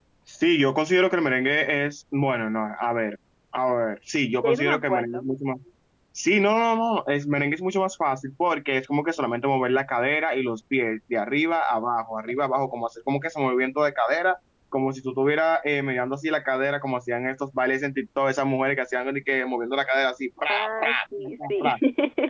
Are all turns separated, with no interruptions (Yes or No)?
No